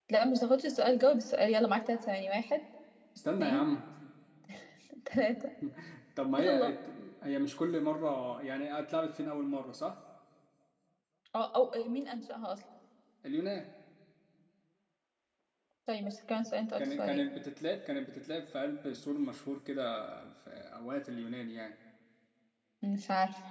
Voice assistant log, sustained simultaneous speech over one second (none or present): none